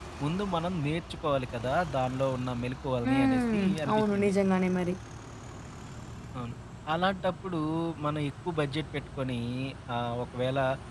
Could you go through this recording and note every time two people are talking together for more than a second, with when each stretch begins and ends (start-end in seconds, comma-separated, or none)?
3.1-4.3